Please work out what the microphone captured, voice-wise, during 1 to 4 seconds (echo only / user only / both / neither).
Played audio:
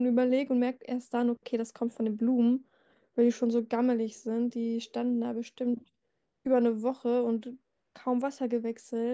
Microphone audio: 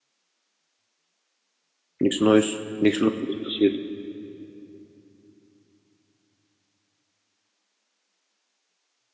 user only